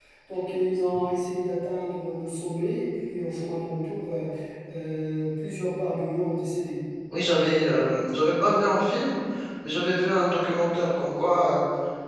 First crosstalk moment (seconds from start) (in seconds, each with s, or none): none